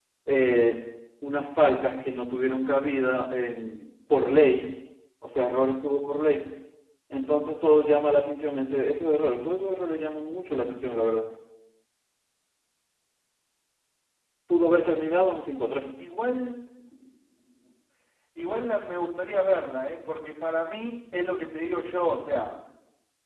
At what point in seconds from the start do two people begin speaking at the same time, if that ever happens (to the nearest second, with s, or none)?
none